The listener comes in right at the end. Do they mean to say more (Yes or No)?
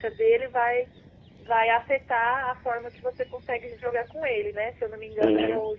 No